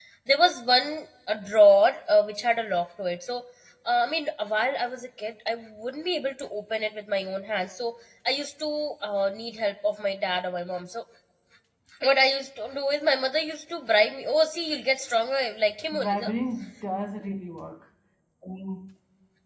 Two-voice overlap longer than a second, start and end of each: none

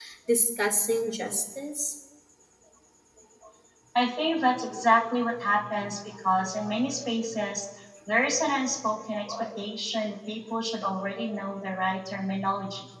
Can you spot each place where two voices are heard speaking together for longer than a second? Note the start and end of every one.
none

